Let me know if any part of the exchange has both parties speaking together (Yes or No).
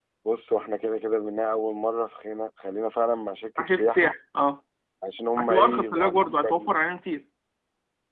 Yes